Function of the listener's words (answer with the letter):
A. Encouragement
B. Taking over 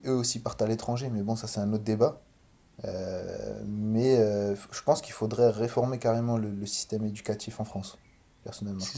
B